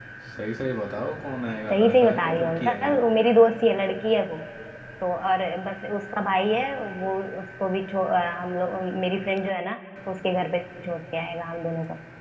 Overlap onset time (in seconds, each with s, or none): 1.7 s